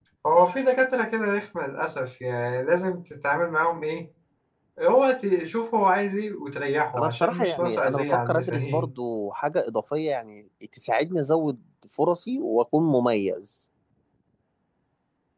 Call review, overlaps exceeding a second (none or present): present